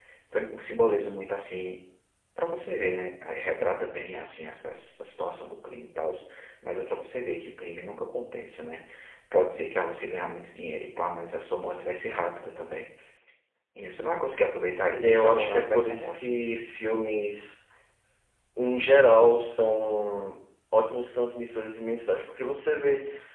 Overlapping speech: Yes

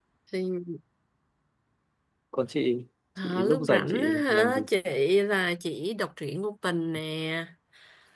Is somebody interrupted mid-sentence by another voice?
Yes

